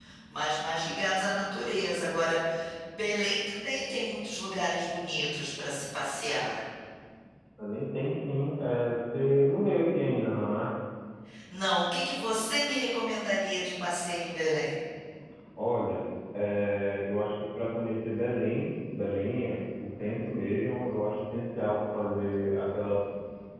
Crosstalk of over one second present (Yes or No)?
No